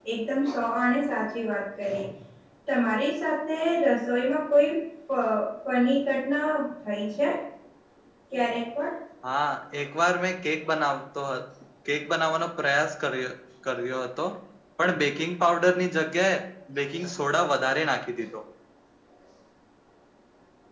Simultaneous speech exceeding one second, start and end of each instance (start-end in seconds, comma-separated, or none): none